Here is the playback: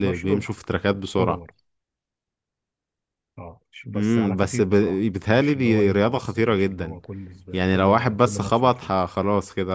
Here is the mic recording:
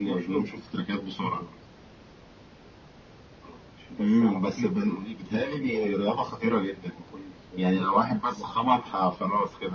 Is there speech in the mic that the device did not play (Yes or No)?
No